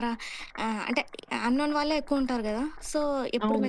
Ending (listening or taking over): listening